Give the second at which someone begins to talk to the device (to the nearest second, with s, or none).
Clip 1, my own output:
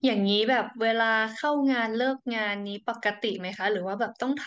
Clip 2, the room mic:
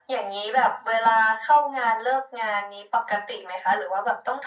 none